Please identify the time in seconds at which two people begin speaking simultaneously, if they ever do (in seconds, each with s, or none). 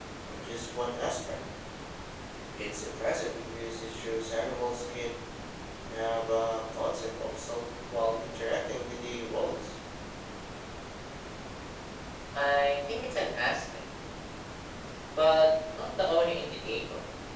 none